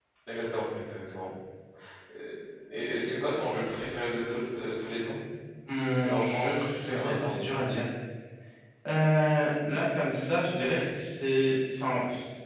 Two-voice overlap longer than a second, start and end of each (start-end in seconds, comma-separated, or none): 6.0-7.4